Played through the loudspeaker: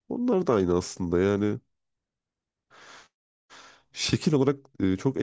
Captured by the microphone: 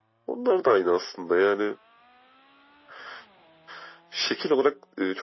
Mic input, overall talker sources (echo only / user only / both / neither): echo only